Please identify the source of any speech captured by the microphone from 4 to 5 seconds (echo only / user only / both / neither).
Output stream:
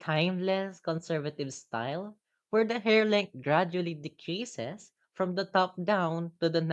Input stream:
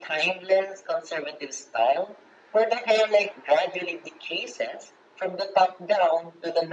echo only